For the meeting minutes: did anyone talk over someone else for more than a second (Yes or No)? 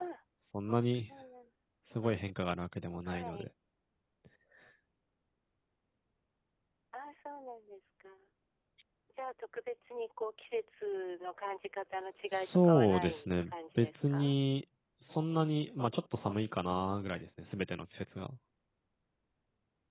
Yes